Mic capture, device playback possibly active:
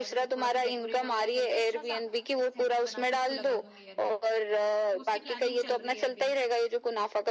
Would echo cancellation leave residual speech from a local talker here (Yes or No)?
Yes